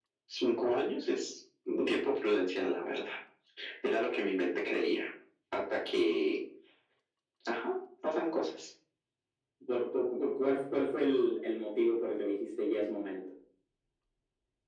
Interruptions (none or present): none